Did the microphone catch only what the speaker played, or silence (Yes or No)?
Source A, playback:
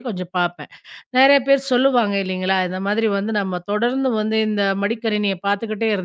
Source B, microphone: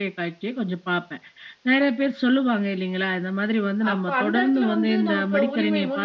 No